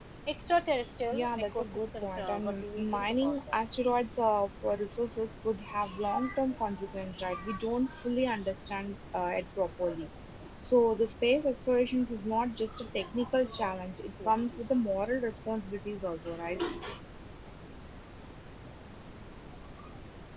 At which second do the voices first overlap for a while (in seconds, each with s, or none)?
1.1 s